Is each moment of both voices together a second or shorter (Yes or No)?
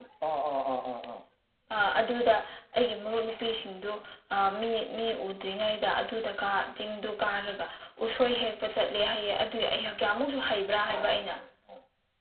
Yes